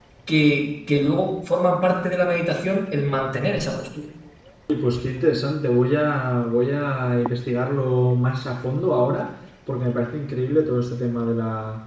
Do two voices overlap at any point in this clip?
No

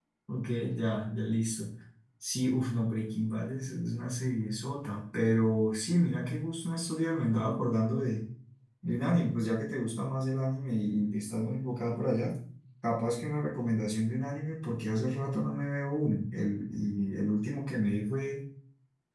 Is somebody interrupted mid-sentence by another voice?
No

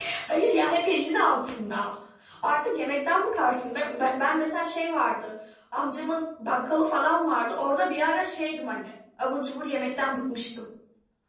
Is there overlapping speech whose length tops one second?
No

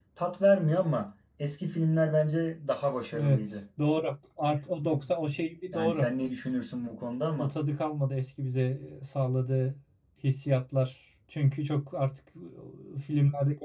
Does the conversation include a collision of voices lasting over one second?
No

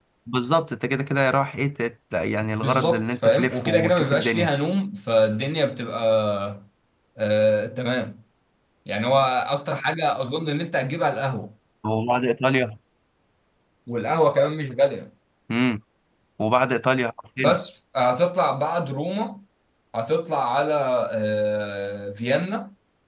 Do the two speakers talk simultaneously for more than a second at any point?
Yes, from 2.5 s

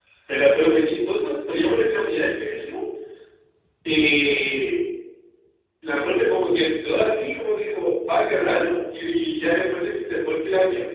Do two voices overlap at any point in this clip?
No

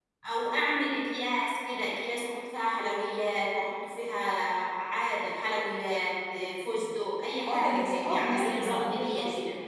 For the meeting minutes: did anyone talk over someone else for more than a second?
Yes, from 7.5 s

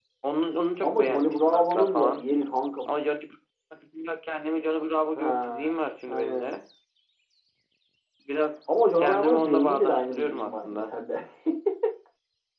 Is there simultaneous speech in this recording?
Yes, from 0.8 s

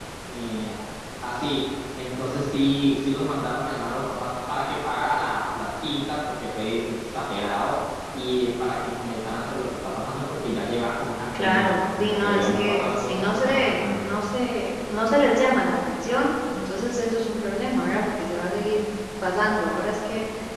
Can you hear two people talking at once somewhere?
Yes, from 11.3 s

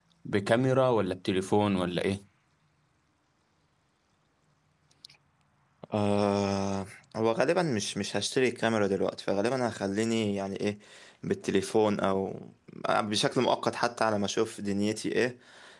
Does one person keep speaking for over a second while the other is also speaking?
No

